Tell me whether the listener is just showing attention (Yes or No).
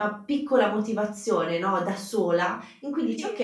Yes